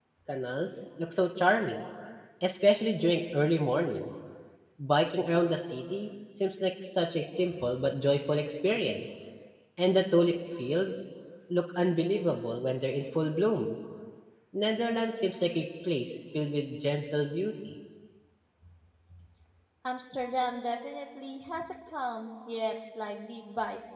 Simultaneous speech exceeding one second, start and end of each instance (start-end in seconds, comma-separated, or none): none